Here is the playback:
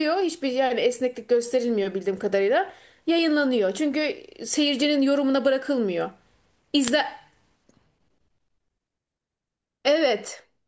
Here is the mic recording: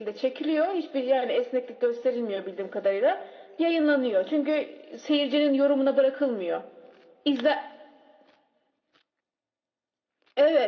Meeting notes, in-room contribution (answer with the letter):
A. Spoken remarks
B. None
B